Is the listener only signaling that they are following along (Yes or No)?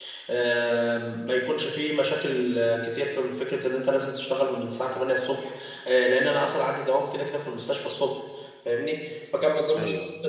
Yes